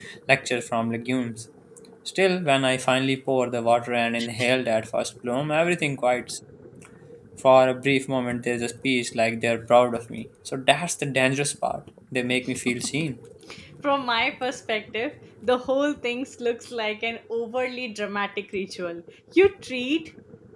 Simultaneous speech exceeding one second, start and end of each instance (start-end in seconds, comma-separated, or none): none